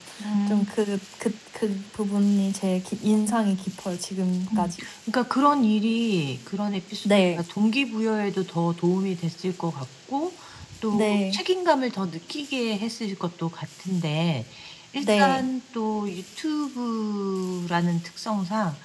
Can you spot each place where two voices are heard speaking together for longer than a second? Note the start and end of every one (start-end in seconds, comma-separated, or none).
none